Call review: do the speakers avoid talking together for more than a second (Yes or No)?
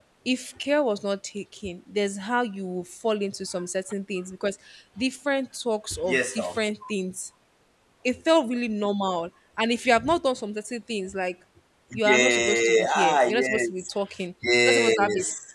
No